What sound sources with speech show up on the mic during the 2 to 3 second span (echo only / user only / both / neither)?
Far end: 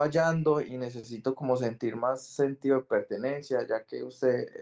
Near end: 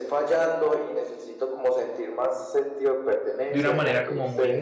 echo only